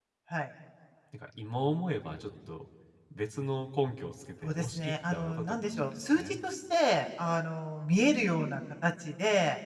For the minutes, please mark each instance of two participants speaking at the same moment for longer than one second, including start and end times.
4.4-6.4

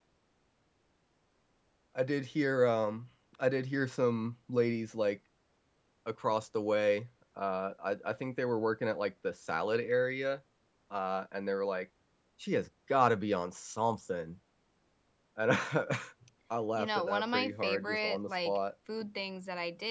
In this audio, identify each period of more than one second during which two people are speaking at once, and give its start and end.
16.8-18.6

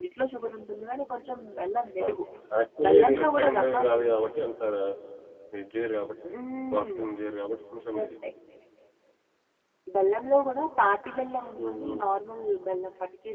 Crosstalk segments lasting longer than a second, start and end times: 2.9-4.5

